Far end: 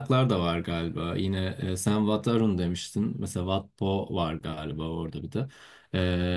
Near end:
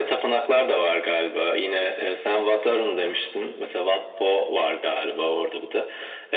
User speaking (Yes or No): No